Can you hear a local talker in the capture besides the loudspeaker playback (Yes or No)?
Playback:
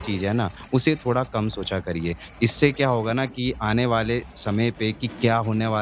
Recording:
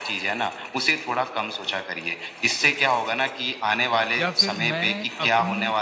Yes